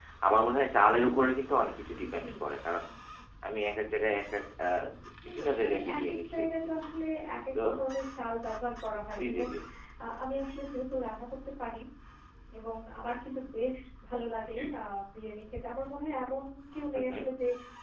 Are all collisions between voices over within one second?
No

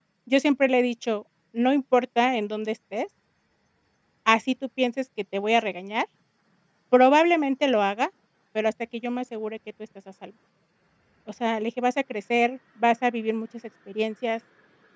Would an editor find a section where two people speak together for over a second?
No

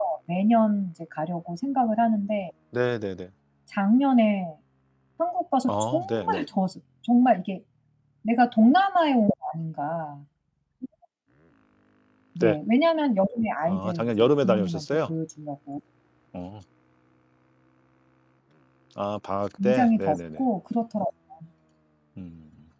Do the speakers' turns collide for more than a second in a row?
Yes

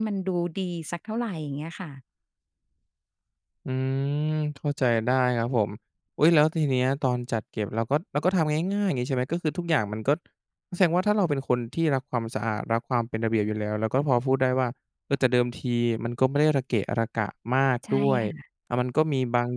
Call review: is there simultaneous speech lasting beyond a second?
No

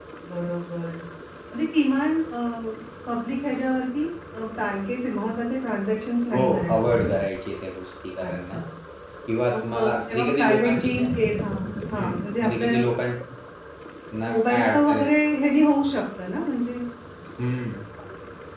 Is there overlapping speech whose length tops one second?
Yes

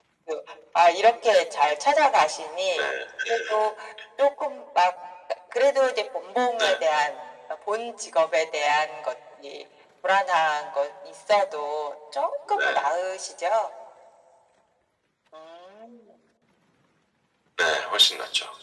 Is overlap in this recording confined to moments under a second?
Yes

